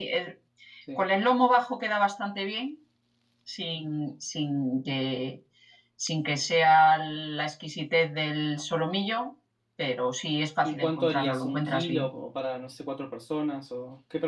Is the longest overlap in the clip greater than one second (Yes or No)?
Yes